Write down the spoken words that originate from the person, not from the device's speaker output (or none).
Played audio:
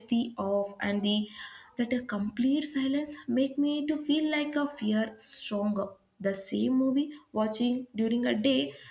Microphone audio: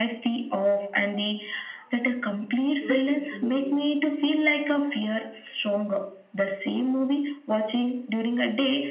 which is immediate